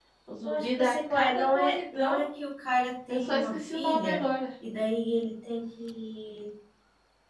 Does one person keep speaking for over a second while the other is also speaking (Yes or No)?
Yes